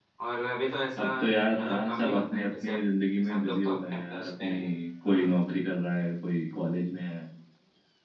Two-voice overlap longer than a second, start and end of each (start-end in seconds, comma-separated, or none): 1.0-2.8, 3.3-4.6